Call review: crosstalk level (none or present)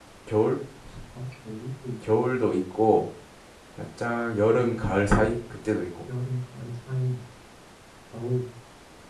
none